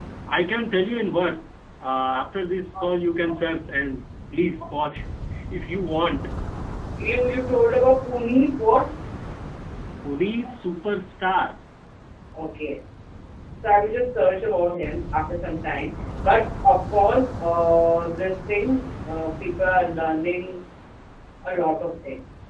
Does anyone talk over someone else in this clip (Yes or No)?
No